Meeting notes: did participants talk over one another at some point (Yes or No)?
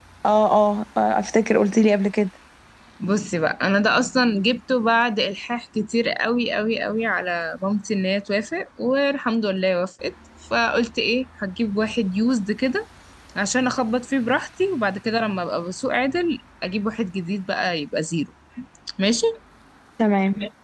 No